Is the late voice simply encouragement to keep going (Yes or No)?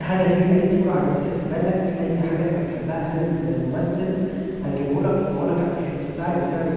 No